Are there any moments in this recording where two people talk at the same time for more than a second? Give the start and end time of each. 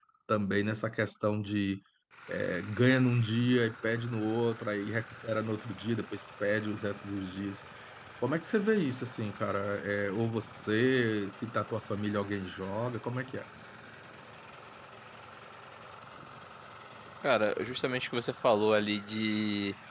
none

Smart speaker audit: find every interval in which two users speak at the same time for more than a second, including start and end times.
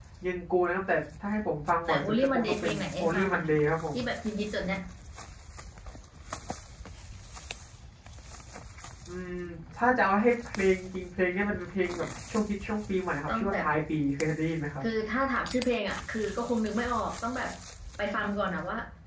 1.9-3.4

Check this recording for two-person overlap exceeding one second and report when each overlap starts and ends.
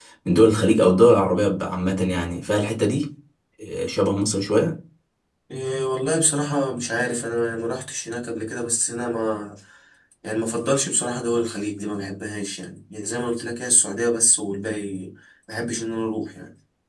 none

